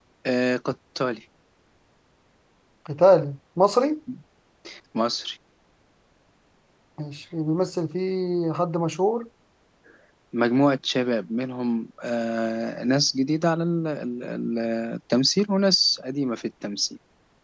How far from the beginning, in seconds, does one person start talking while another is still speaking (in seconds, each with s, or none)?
none